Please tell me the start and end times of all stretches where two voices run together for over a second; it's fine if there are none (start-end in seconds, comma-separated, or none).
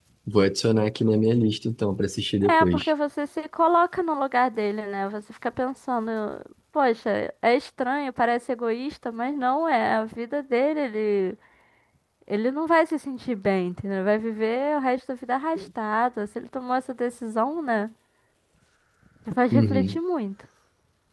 none